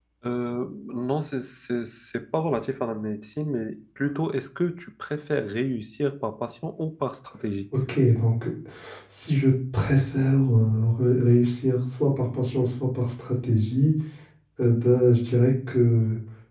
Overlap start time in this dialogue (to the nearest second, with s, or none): none